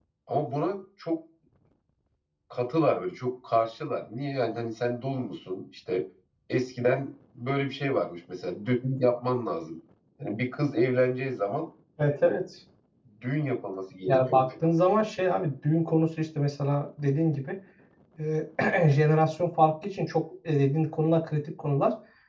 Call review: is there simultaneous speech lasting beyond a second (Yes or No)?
No